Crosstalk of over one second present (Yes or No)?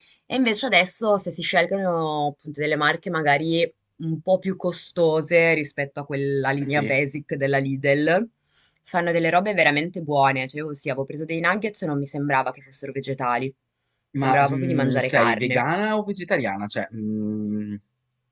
Yes